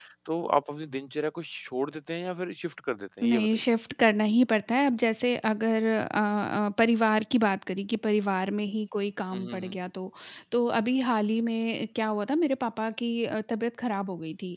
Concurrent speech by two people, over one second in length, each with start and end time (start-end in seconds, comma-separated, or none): none